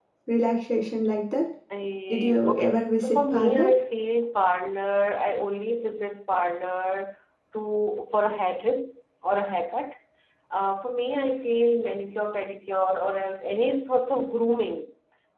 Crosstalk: present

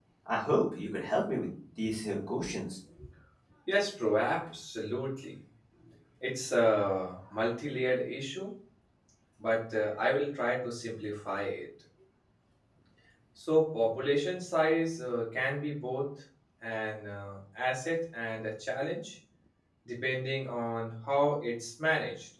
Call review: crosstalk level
none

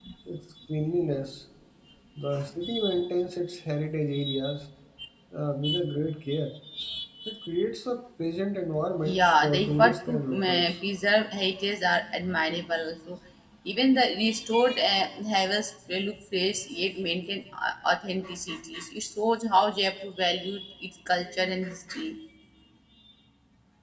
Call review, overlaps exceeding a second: present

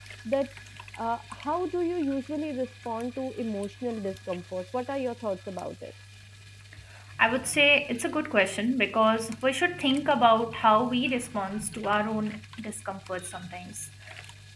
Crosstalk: none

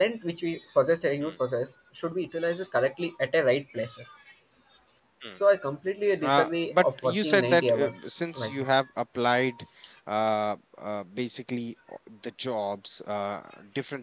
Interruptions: present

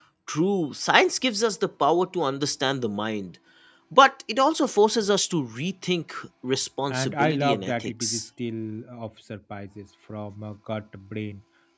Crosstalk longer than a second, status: present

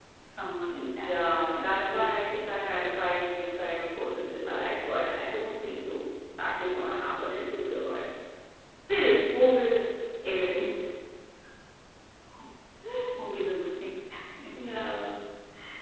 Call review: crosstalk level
present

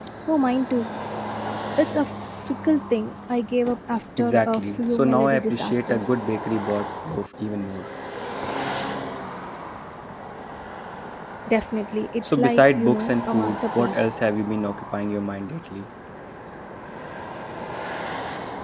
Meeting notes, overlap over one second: present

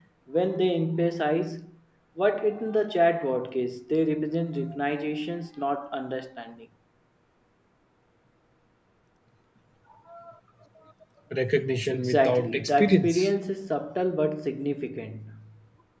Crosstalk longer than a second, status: present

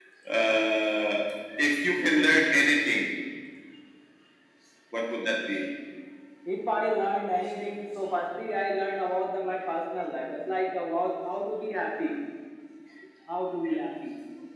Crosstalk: none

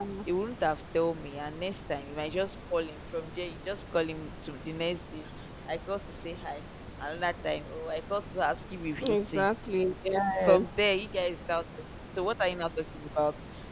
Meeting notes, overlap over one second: none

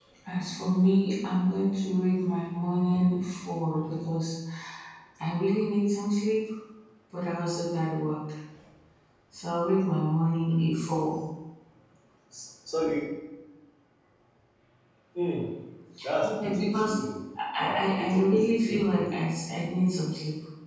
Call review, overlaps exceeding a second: present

